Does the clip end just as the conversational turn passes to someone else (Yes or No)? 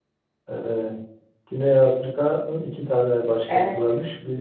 No